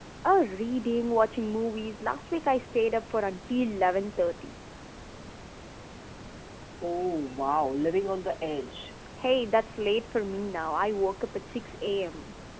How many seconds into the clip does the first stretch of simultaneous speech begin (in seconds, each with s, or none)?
none